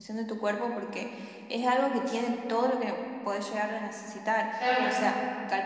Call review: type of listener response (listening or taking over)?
listening